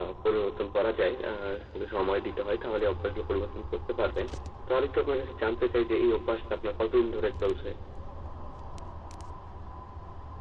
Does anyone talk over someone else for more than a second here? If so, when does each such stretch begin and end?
none

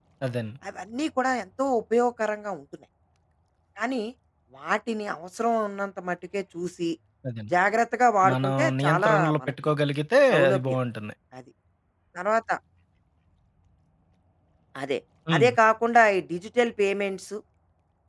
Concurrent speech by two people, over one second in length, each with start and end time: 8.3-9.7

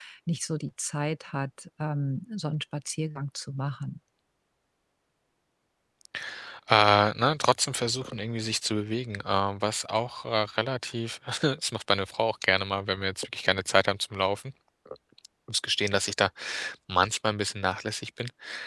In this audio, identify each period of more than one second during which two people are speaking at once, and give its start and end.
none

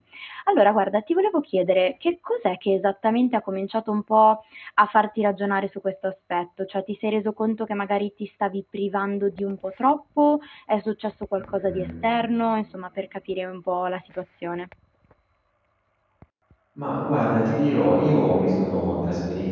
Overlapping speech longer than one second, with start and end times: none

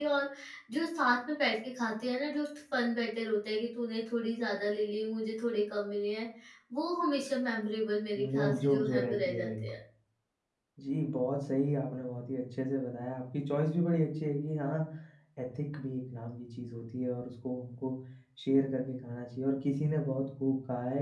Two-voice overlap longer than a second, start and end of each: 8.2-9.5

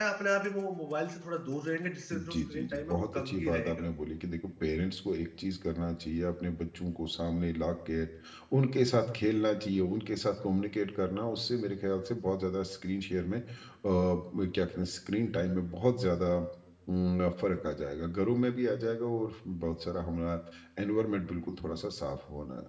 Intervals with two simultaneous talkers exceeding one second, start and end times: 2.1-3.8

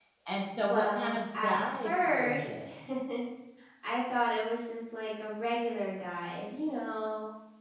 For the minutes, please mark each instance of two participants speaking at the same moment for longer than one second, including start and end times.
0.6-2.7

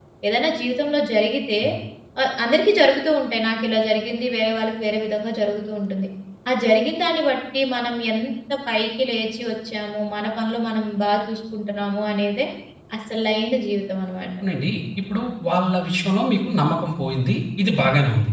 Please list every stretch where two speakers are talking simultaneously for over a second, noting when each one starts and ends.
none

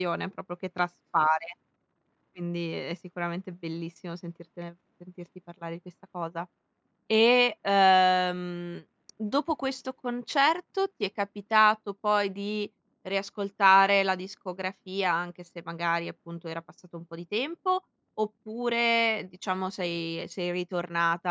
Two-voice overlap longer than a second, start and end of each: none

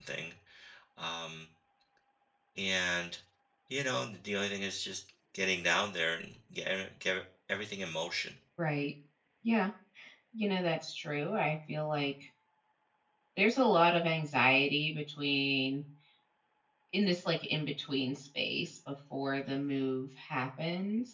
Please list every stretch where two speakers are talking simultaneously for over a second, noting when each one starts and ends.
none

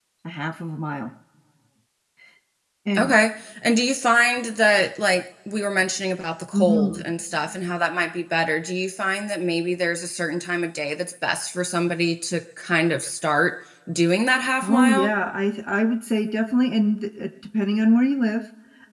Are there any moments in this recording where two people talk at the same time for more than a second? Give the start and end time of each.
none

